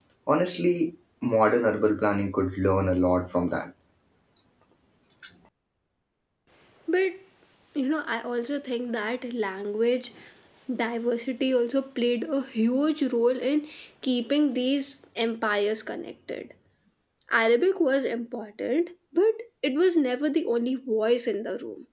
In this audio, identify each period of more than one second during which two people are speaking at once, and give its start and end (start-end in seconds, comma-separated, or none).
none